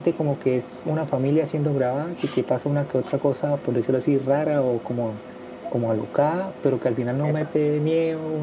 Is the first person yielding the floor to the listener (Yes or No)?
No